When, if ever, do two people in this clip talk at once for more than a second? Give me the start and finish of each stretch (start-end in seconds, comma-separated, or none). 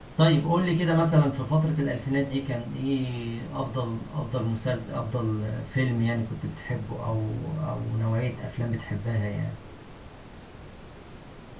none